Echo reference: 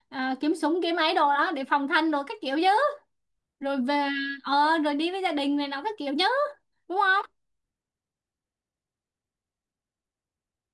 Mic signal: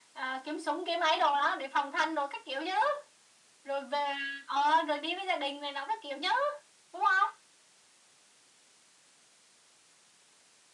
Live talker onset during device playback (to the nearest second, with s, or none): none